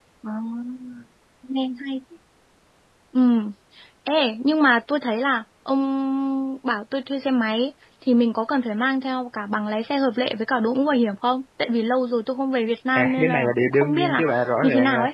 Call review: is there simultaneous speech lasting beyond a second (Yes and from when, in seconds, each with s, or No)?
Yes, from 12.9 s